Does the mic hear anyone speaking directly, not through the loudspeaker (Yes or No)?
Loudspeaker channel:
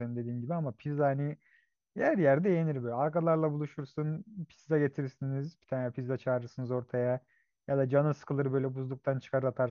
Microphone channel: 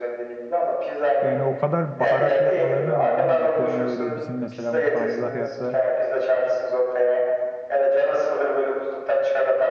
Yes